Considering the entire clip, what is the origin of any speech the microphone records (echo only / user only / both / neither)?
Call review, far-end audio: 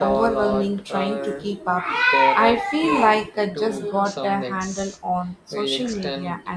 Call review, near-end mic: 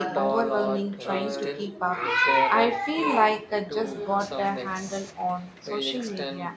both